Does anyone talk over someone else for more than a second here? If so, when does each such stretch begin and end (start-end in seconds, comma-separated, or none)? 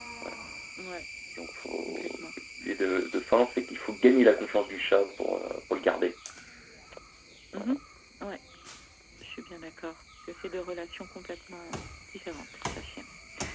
none